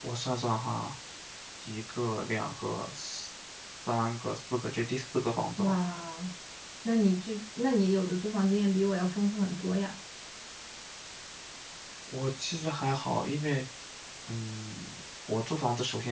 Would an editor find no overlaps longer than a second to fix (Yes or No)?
Yes